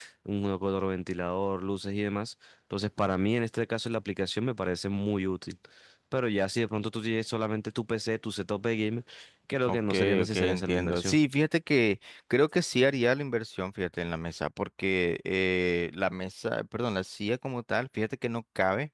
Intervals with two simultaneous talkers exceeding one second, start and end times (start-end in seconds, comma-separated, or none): 9.7-11.2